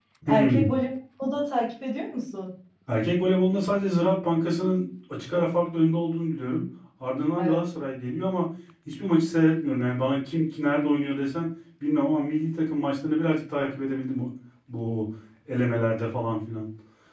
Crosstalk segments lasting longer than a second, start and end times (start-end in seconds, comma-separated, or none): none